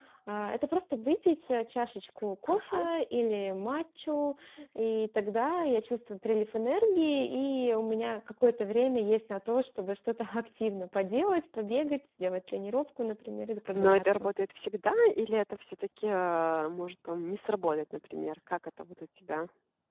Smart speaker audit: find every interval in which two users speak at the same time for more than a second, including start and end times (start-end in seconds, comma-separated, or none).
none